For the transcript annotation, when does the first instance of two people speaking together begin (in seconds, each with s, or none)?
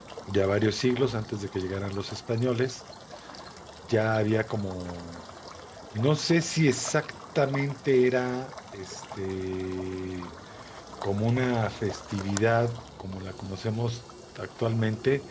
none